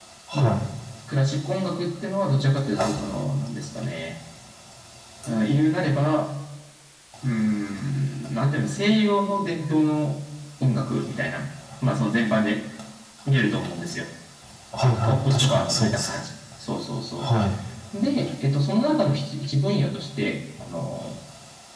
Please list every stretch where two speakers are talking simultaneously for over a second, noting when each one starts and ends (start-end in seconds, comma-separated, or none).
14.8-16.1